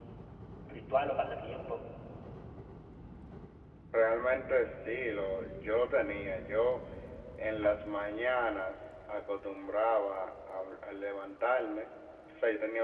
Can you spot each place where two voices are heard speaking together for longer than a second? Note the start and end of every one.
none

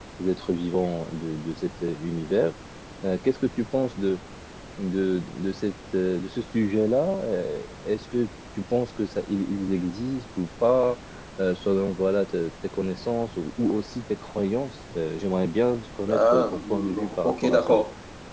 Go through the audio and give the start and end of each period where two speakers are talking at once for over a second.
16.1-17.8

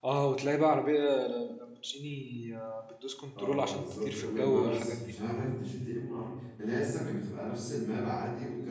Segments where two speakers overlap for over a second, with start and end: 3.4-5.1

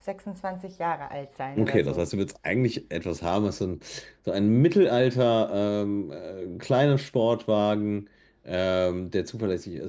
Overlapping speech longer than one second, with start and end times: none

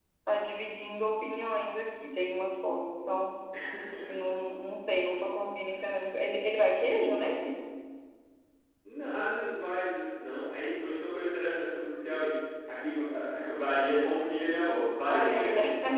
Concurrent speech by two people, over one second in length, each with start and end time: none

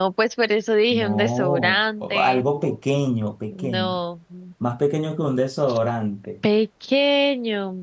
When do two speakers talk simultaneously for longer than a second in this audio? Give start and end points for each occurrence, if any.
1.0-2.5

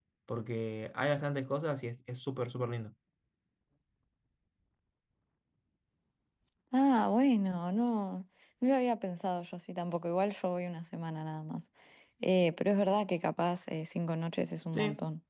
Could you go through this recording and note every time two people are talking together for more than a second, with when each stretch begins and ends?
none

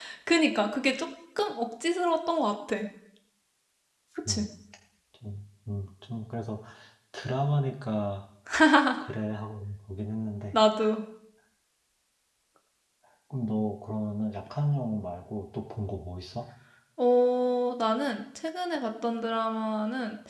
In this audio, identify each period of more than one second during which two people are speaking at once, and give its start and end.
none

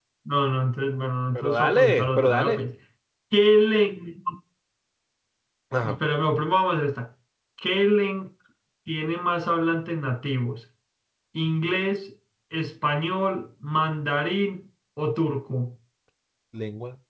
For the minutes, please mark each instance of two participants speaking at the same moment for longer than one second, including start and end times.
1.3-2.6

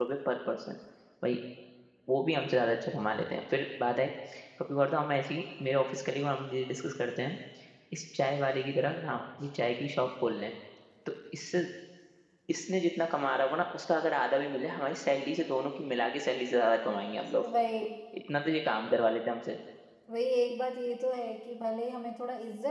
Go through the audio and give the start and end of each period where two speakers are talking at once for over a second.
none

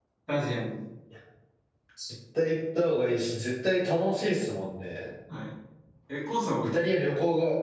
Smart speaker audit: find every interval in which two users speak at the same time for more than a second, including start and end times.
none

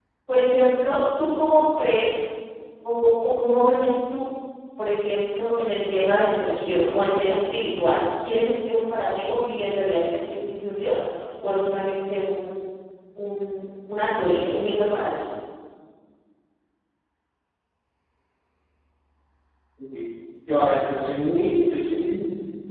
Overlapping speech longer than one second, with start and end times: none

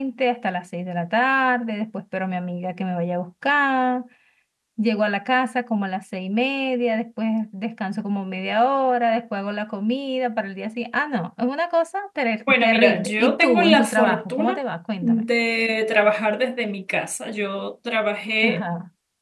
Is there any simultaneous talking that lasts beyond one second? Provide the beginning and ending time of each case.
12.5-14.6

